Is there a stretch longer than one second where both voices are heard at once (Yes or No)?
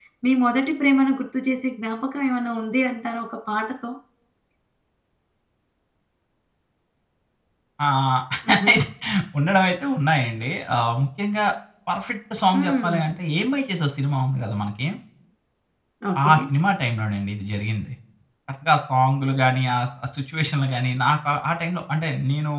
No